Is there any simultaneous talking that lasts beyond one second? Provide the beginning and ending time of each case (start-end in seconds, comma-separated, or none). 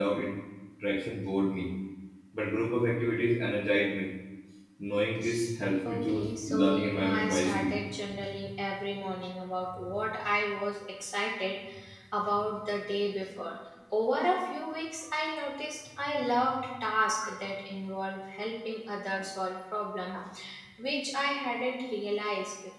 5.8-7.7